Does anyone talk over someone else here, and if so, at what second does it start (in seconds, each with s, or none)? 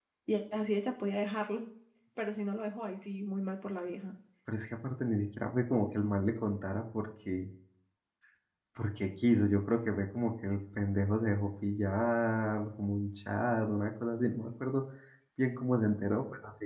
none